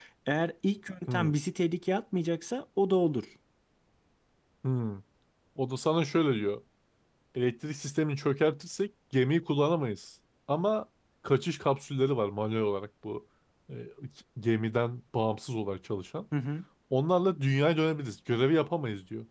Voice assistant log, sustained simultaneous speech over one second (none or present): none